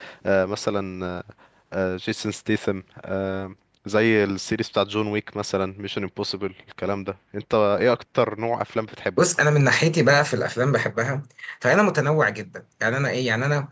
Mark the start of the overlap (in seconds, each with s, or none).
none